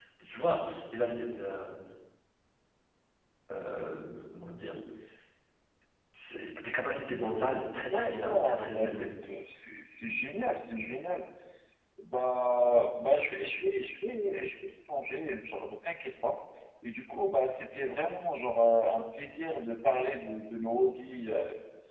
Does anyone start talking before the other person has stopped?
Yes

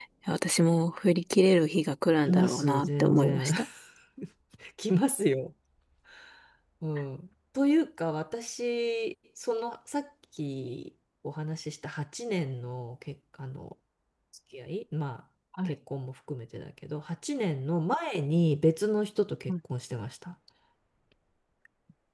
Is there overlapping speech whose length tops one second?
Yes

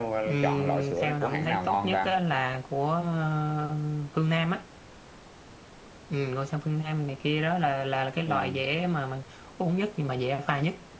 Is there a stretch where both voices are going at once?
Yes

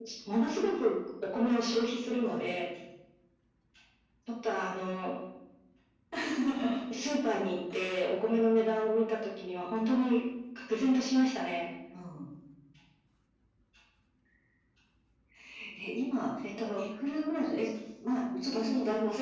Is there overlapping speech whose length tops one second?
No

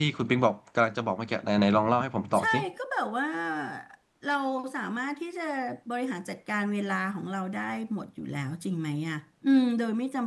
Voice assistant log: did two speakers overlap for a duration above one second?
No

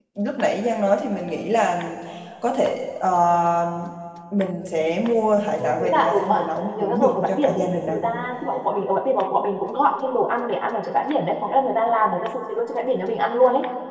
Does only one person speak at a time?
No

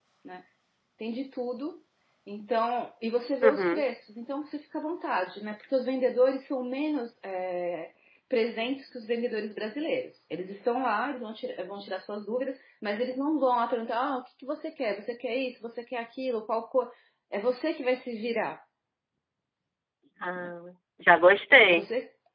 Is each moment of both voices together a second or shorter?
Yes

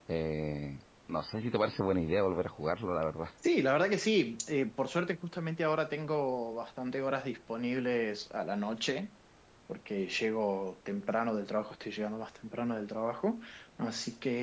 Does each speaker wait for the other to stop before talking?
Yes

